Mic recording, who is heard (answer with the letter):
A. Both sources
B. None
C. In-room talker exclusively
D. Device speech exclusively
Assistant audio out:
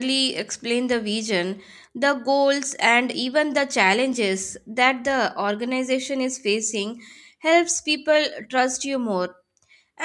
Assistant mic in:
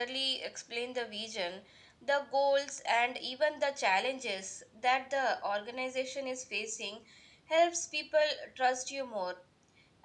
D